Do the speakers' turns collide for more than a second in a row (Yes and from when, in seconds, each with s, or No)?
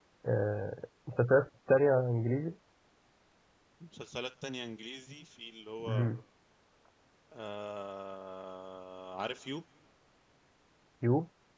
No